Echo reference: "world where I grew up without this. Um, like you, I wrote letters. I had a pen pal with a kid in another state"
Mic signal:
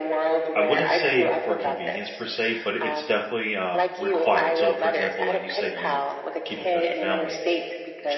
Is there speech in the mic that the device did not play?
Yes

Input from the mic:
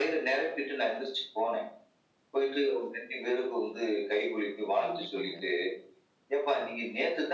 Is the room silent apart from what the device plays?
No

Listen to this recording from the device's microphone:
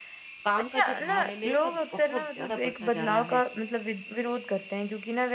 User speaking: Yes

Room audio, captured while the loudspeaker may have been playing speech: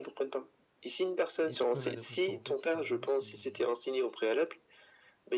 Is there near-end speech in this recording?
Yes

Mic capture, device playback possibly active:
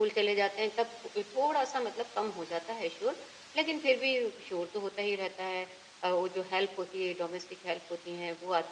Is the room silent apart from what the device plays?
Yes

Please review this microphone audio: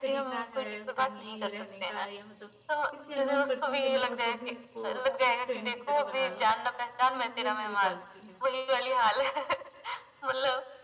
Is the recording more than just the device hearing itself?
Yes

